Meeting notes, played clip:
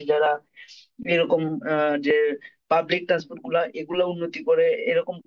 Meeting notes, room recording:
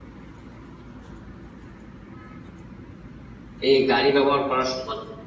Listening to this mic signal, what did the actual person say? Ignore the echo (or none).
এই গাড়ি ব্যবহার করার সমান